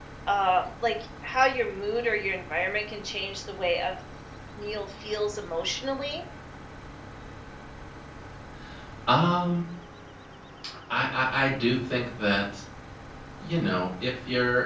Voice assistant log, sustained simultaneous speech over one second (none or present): none